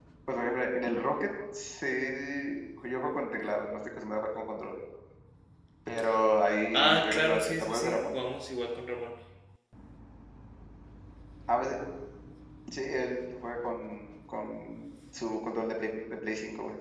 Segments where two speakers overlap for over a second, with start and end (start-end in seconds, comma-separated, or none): 6.7-8.0